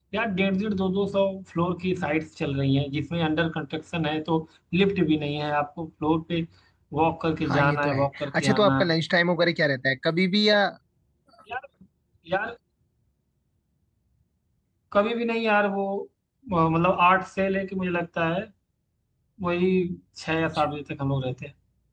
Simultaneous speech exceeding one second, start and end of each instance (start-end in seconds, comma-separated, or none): 7.4-8.9